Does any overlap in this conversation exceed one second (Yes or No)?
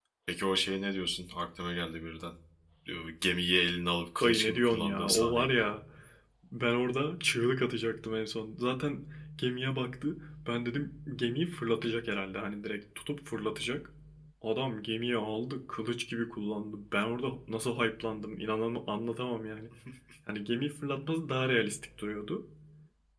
Yes